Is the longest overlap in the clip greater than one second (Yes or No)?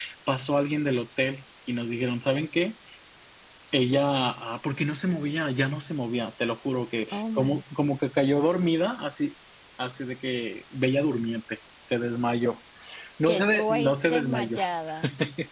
Yes